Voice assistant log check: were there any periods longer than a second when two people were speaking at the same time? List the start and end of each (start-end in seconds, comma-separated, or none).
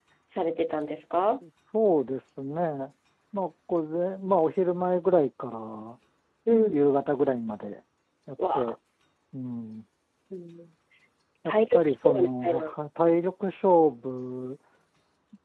11.4-12.7